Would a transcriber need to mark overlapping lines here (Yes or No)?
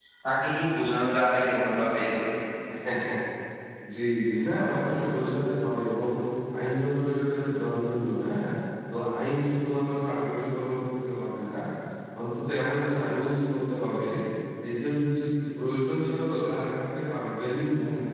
No